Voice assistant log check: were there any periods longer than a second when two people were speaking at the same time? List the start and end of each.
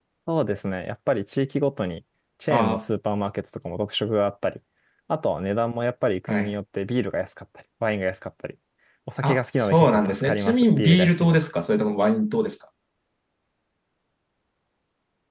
9.2-11.5

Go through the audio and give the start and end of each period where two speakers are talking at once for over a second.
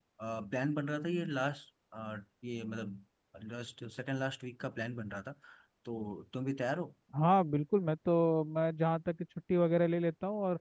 none

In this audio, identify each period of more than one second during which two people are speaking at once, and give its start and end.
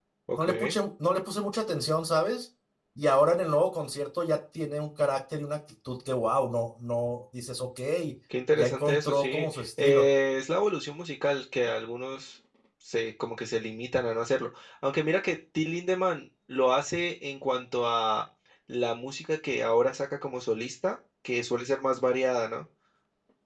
8.6-10.1

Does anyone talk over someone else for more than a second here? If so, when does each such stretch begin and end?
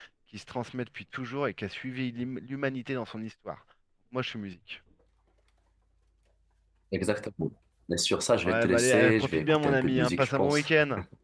8.4-10.7

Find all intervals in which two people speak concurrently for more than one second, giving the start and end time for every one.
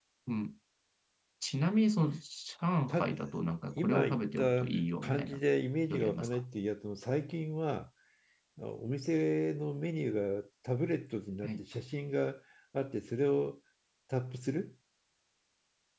3.8-5.4

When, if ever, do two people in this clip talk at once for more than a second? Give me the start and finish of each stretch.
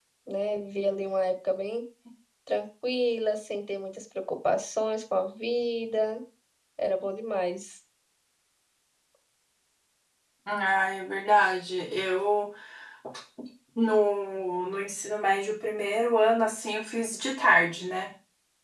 none

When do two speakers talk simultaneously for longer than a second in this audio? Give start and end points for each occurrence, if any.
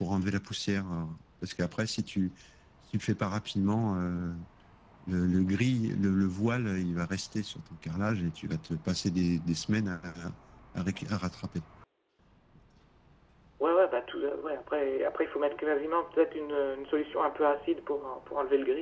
none

